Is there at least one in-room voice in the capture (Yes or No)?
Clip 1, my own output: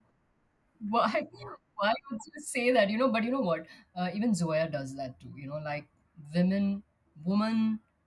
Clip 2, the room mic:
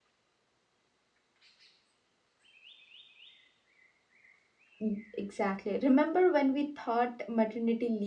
Yes